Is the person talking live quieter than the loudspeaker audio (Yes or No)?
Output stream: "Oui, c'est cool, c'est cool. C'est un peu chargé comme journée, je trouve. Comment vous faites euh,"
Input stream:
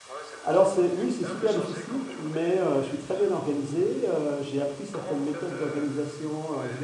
No